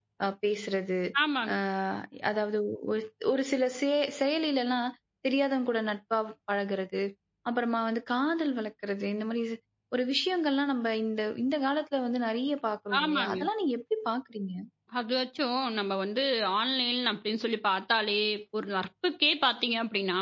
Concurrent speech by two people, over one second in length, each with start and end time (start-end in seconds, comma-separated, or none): none